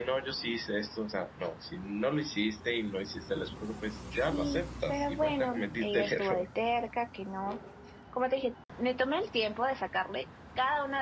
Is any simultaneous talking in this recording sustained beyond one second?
Yes, from 4.1 s

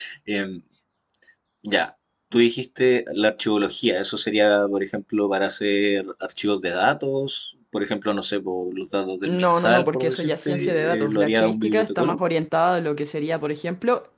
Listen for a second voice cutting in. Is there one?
Yes, from 9.2 s

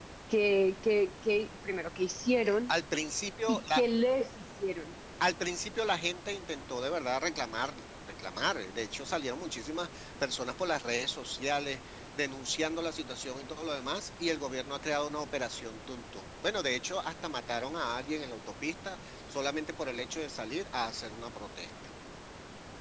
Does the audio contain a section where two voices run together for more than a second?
No

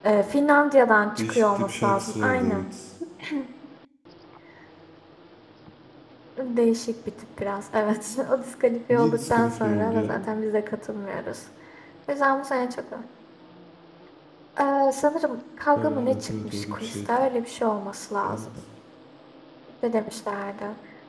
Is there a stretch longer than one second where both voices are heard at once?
Yes, from 1.2 s

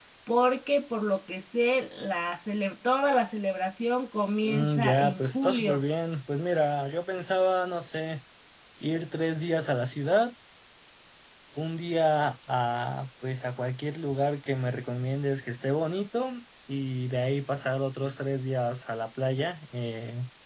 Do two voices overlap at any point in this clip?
Yes, from 4.4 s

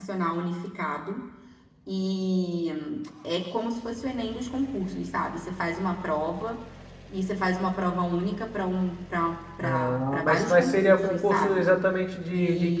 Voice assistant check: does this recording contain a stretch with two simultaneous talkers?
Yes, from 9.6 s

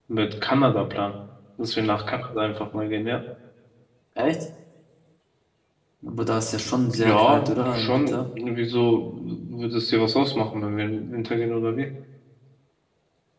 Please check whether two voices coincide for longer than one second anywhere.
Yes, from 6.8 s

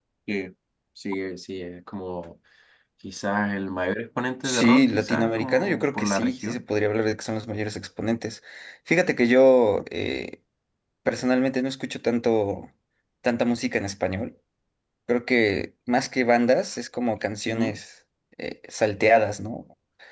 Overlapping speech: Yes, from 4.4 s

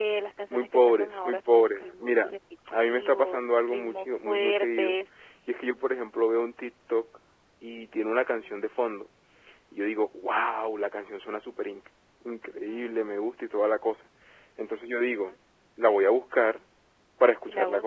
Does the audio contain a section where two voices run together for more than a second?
Yes, from 0.5 s

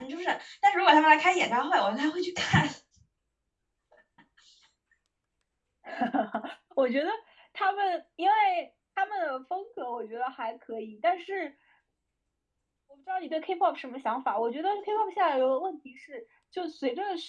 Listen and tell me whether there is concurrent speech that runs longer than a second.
No

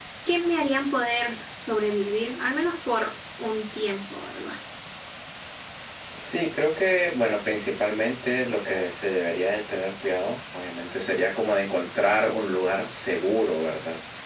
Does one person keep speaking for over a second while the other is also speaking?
No

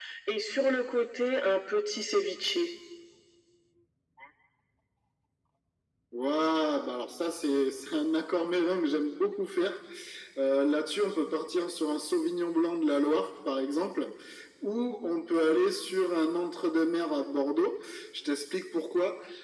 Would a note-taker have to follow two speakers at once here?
No

